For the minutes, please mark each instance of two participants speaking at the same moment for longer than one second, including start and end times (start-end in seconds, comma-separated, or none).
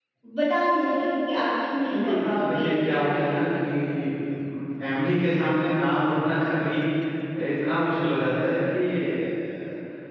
1.9-3.5